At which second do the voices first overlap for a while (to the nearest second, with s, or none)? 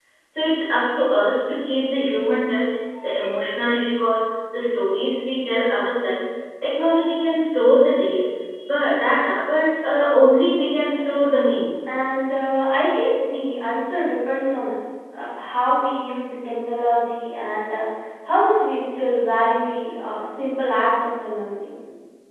none